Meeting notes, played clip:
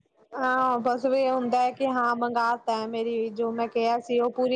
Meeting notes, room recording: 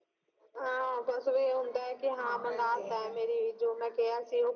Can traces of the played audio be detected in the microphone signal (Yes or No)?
Yes